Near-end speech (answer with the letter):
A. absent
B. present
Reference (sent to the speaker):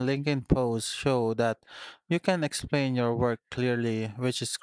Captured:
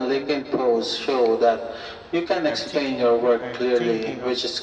B